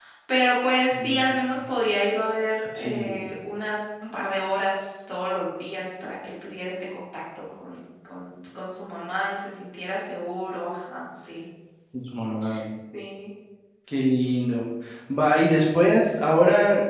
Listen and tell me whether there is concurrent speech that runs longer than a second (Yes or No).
No